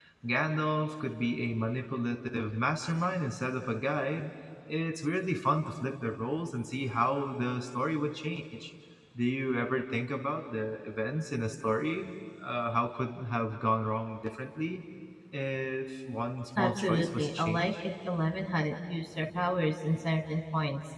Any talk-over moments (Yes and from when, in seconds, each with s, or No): Yes, from 16.6 s